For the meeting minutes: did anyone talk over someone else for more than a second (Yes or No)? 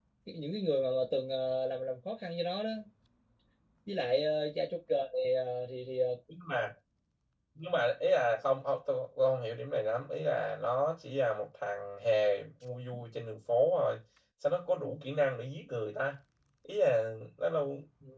No